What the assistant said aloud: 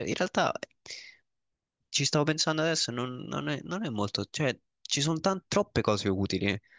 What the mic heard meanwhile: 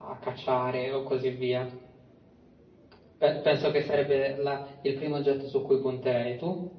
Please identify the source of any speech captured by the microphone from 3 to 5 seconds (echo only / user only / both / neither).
user only